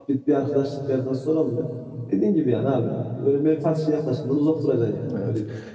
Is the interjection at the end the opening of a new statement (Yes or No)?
Yes